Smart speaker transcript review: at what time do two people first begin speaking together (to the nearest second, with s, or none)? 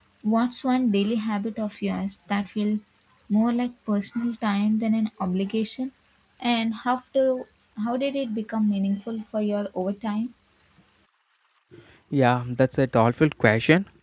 none